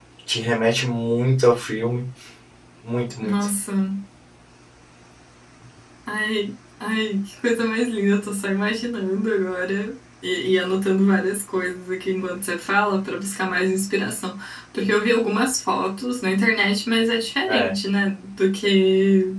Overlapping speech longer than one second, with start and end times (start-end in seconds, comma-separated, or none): none